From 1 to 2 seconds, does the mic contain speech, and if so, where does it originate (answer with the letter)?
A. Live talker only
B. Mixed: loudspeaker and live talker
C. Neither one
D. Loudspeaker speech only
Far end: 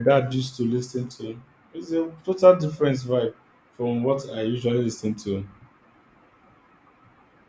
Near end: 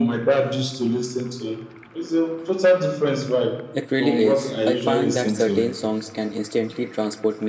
D